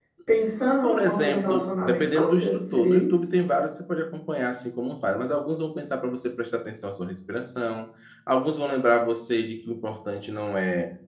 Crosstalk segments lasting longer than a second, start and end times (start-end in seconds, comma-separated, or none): 0.8-3.1